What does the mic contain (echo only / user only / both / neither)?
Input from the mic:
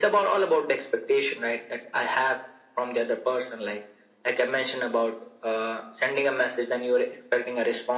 echo only